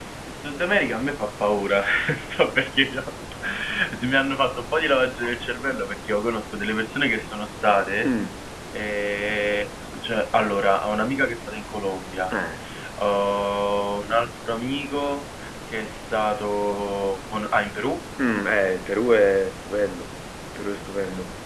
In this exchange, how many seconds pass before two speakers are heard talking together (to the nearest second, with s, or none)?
none